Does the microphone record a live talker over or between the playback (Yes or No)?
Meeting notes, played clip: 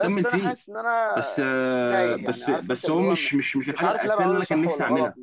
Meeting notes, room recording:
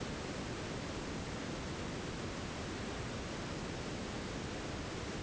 No